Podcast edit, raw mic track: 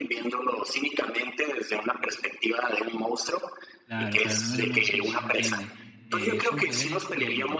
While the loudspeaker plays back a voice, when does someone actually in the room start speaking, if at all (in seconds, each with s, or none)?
3.8 s